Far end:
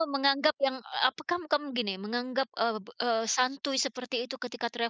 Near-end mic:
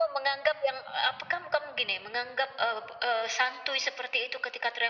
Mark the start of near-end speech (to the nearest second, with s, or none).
none